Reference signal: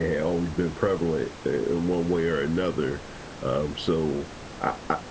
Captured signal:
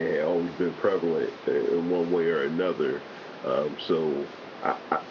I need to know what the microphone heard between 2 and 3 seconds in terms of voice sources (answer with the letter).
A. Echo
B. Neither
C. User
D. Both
A